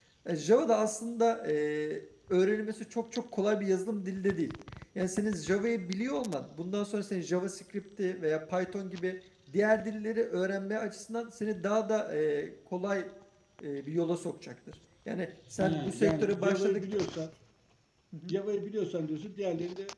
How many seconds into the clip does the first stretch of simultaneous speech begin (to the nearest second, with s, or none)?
16 s